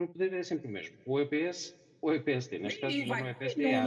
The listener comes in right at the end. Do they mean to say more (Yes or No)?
Yes